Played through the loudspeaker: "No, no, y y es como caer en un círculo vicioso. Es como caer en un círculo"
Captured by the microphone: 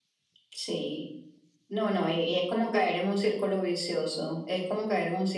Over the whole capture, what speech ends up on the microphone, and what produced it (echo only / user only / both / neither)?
echo only